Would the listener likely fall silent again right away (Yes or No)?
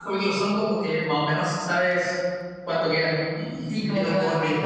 No